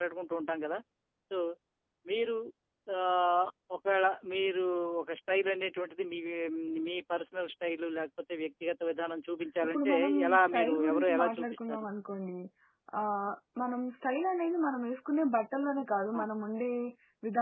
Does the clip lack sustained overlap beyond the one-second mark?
No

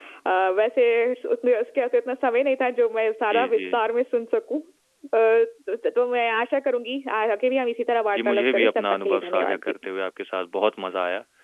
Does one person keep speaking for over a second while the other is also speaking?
Yes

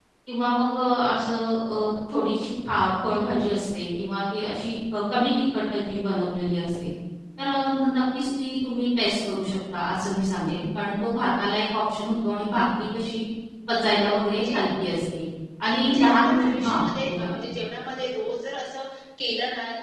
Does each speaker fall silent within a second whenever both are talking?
No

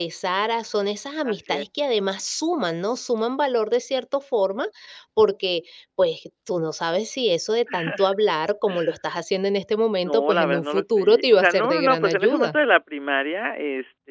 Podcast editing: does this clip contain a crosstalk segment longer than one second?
Yes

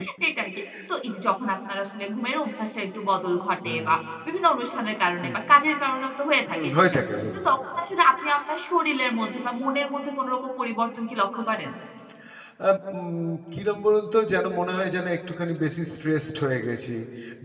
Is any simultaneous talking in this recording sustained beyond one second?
No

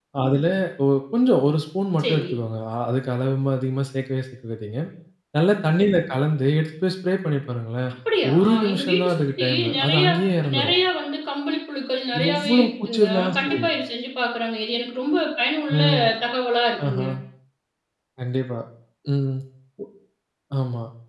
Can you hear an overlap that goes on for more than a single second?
Yes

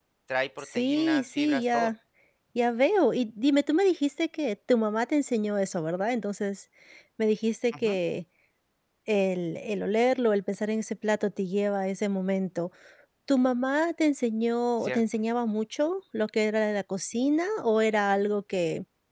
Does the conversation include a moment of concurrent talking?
Yes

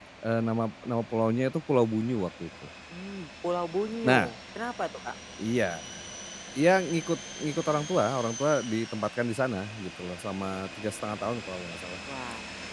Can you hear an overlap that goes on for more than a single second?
No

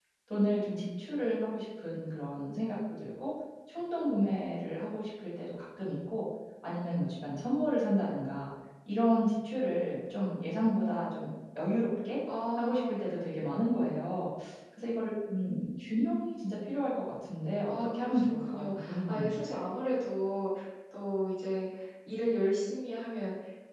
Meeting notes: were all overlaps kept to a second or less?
No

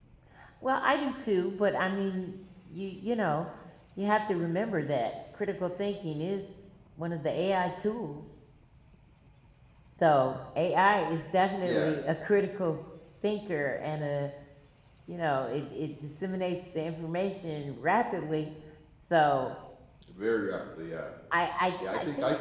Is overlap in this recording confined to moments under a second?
Yes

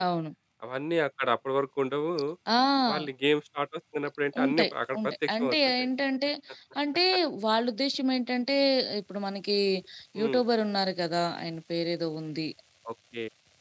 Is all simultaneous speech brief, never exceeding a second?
No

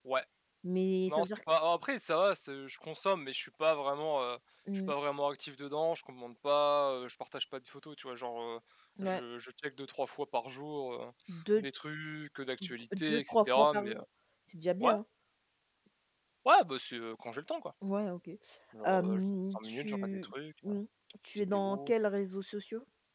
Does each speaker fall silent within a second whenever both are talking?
No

